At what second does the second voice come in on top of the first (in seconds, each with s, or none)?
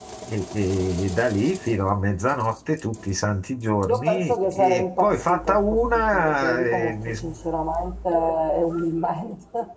3.9 s